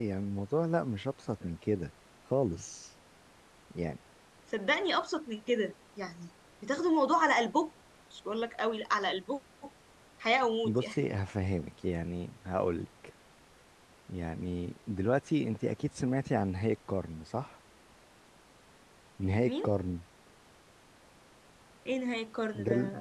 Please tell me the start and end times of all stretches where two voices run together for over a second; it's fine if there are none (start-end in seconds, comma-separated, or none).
none